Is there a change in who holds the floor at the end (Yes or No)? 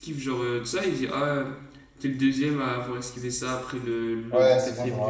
Yes